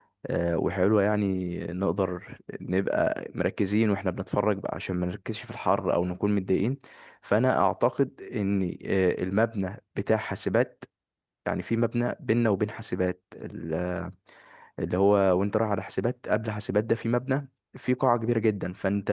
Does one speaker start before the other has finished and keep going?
No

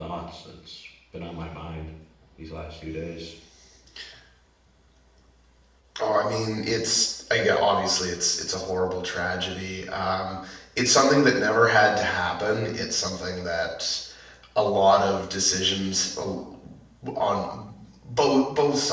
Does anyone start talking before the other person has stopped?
No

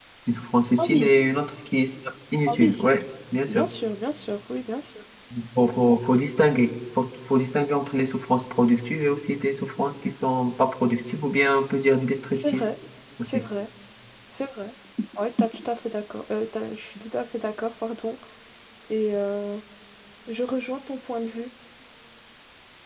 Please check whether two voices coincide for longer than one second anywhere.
No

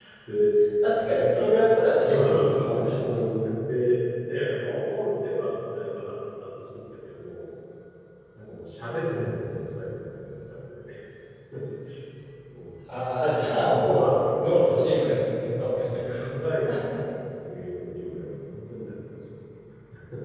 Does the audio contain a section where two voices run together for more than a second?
Yes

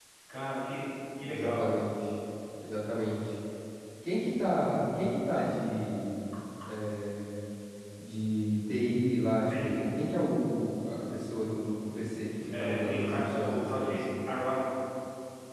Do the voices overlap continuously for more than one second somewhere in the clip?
Yes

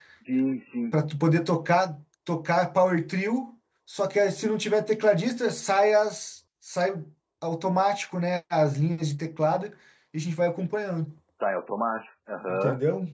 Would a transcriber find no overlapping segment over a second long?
Yes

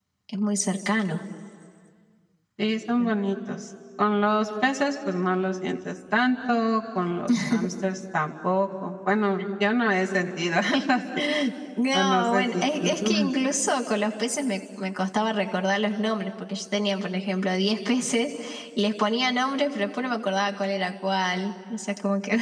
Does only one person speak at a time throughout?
No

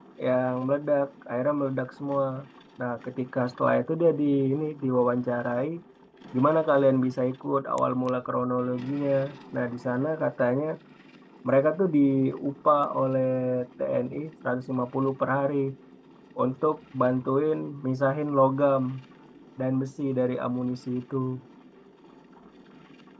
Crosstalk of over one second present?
No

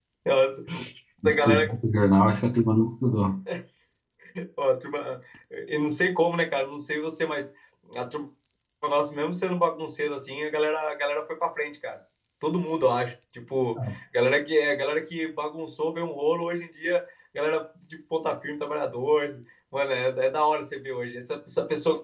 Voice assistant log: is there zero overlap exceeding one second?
Yes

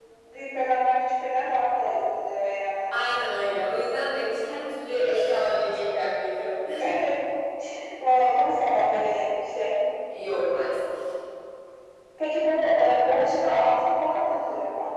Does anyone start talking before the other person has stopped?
No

